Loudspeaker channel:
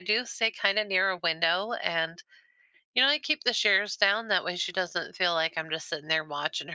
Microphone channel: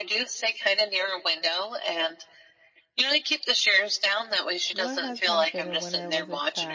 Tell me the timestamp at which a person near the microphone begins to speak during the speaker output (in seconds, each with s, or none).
4.7 s